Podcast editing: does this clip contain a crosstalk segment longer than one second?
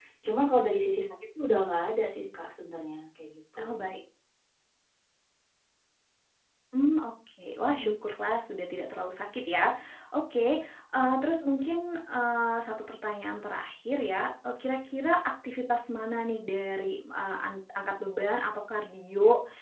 No

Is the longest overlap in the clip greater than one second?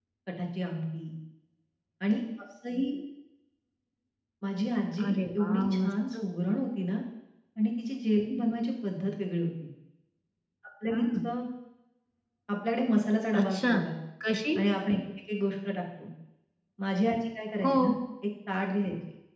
Yes, from 5.0 s

